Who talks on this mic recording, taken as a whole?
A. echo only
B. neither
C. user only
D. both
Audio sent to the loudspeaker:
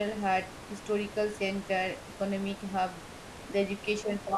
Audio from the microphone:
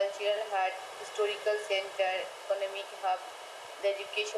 A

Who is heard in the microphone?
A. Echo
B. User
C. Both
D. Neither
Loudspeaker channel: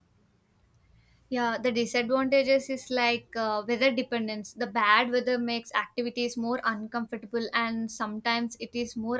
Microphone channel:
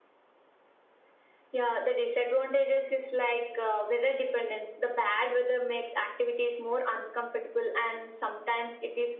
A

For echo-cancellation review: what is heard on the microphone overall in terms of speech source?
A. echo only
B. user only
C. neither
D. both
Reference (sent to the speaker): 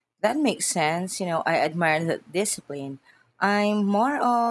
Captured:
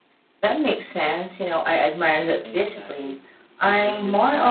D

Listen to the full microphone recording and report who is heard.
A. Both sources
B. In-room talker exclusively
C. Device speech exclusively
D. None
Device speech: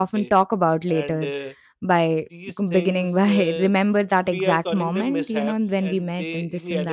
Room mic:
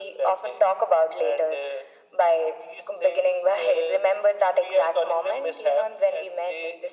C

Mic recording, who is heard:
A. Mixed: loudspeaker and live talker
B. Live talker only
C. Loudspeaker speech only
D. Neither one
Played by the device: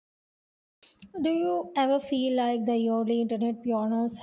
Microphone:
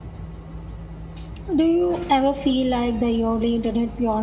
C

